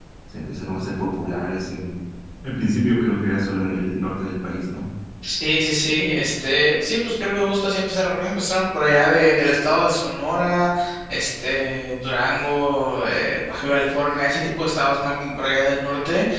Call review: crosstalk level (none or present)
none